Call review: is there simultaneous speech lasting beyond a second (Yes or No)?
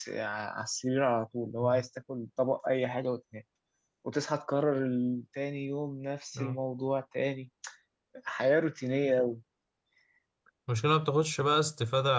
No